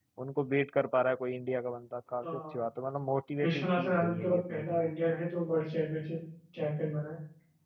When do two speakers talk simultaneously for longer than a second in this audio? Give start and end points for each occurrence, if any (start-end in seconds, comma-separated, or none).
3.4-4.9